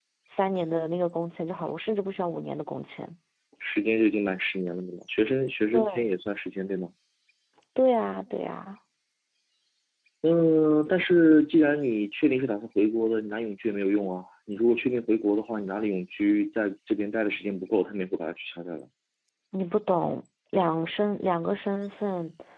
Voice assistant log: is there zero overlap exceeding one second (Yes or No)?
Yes